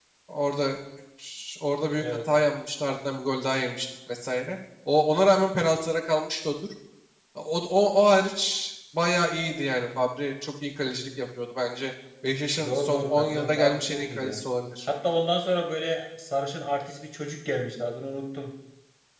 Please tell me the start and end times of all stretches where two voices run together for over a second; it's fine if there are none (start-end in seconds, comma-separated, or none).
12.6-14.4